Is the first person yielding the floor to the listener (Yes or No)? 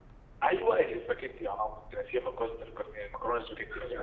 Yes